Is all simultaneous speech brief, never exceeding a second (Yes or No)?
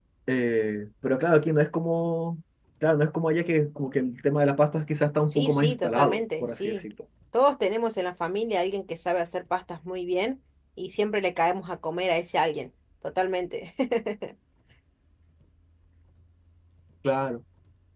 No